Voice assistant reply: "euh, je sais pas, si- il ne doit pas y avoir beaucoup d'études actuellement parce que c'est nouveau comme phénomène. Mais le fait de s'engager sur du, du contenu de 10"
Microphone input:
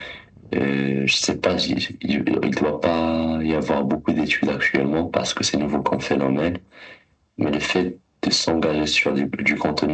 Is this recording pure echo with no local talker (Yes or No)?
Yes